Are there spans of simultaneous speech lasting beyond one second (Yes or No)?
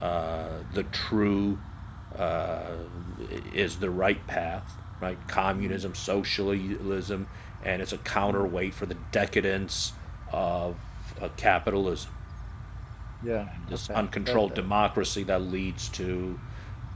Yes